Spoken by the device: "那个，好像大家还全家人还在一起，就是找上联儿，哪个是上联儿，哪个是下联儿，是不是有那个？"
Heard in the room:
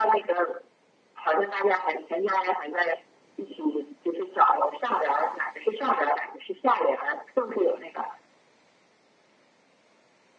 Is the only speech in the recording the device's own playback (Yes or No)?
Yes